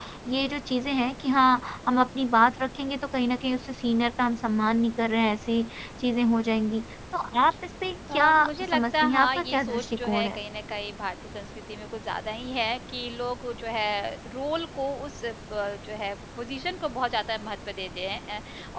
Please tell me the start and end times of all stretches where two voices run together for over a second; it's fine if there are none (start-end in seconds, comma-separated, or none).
8.7-10.4